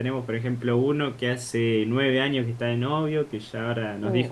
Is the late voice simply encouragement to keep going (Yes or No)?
Yes